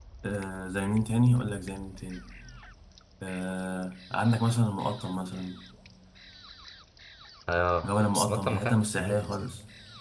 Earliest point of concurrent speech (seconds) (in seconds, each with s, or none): 7.8 s